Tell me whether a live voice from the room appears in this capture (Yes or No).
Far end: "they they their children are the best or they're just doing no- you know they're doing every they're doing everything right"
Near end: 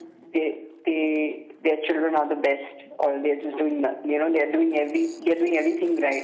No